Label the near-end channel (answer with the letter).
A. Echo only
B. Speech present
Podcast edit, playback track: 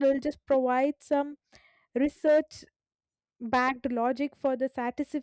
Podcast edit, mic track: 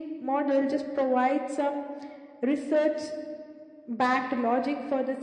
A